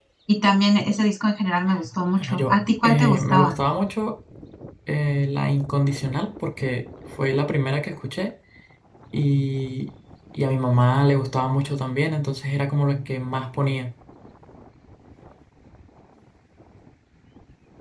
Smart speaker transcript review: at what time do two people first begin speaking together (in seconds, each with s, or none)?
2.1 s